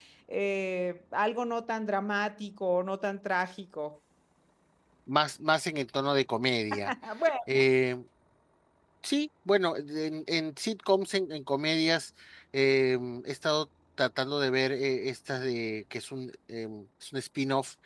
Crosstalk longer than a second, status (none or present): none